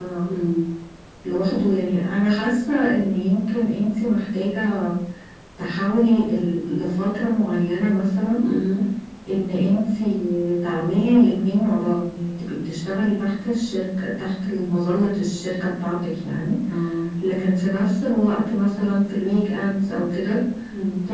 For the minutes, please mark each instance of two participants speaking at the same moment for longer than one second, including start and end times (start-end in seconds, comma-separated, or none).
none